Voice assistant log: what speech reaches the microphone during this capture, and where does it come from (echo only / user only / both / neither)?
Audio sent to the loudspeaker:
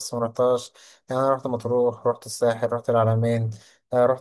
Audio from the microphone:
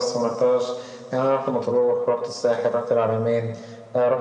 echo only